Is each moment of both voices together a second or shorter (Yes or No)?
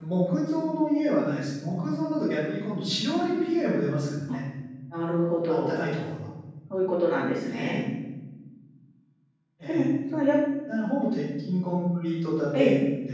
Yes